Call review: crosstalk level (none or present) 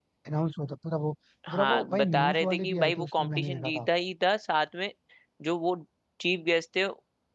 present